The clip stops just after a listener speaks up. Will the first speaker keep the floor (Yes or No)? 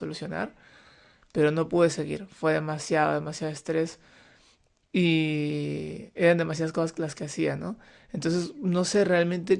Yes